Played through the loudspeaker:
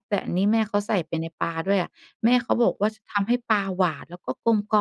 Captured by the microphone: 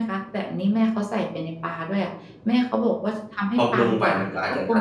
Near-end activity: present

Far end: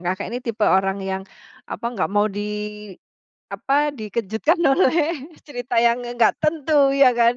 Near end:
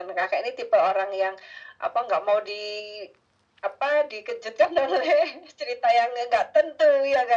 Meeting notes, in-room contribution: none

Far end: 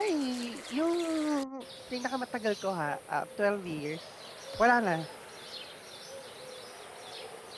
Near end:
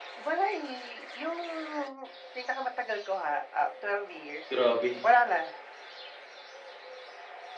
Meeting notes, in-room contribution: present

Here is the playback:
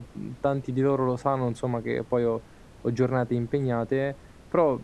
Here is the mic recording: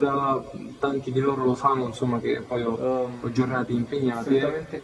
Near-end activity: present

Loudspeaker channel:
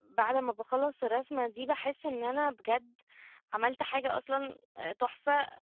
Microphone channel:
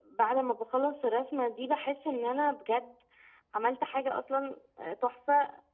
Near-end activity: none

